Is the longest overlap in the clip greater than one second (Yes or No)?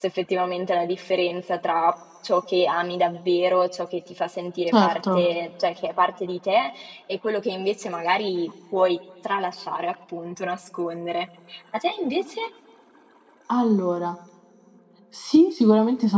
No